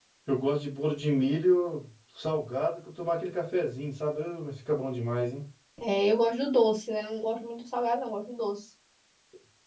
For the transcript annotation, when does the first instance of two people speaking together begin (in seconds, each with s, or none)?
none